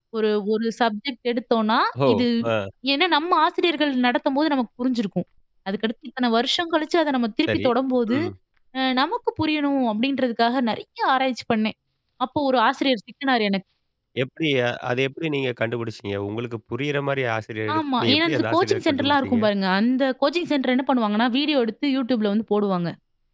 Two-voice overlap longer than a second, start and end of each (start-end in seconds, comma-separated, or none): 17.8-19.4